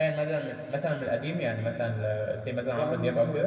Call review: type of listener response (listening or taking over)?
taking over